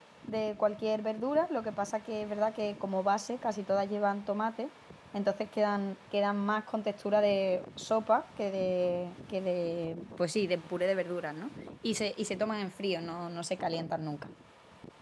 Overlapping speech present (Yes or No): No